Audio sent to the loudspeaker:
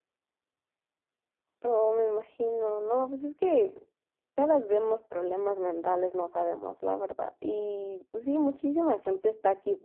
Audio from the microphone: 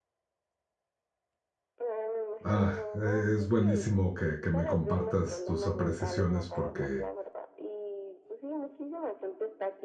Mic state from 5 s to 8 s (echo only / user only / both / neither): both